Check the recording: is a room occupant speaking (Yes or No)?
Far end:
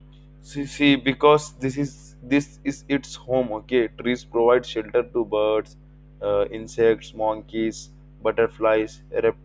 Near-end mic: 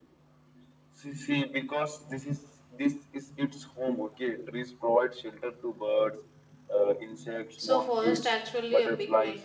Yes